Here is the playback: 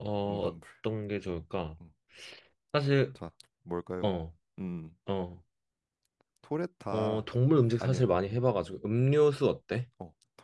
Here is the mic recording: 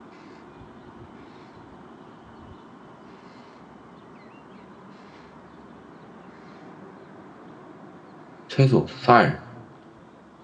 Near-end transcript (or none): 채소, 쌀.